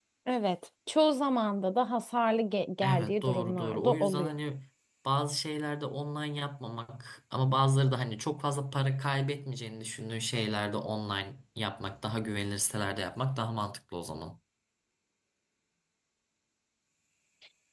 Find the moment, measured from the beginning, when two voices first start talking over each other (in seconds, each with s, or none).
2.8 s